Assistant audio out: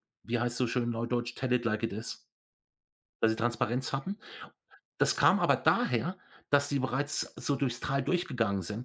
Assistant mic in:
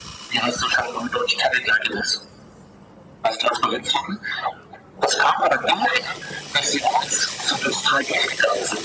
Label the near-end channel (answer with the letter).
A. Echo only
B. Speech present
A